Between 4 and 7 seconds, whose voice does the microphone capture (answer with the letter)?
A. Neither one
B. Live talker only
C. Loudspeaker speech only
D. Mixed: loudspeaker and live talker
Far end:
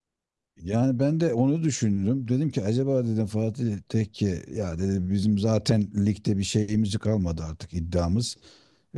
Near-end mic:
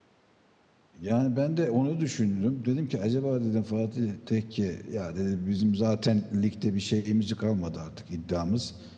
C